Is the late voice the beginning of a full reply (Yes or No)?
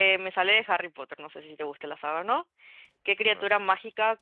No